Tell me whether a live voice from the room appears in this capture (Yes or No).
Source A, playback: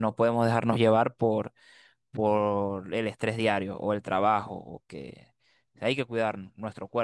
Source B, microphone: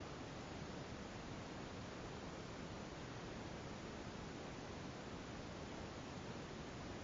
No